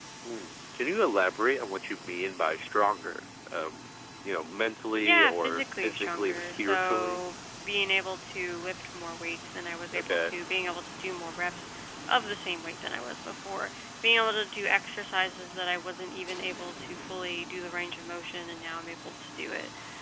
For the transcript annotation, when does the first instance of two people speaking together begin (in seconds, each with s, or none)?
5.0 s